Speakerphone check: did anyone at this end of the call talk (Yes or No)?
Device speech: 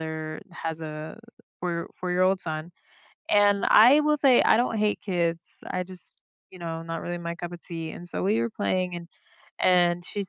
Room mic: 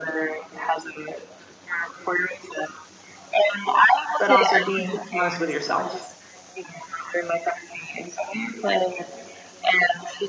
Yes